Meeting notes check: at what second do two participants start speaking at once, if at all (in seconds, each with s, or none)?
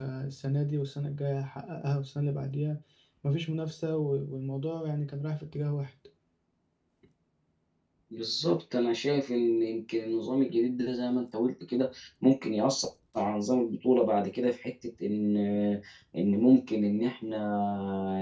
none